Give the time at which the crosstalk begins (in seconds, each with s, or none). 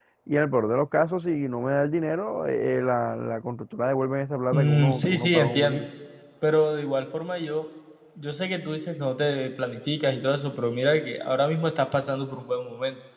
4.5 s